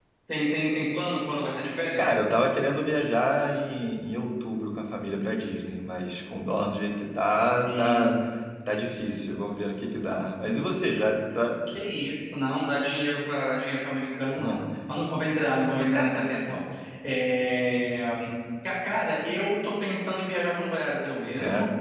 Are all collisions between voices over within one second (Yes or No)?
Yes